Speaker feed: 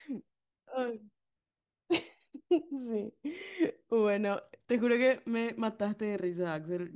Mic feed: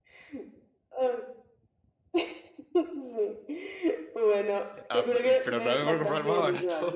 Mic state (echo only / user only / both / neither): both